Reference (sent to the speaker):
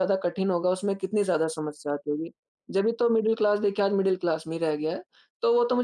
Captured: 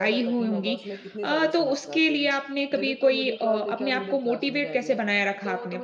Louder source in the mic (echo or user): user